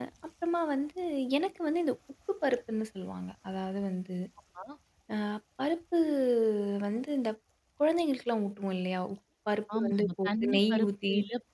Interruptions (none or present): present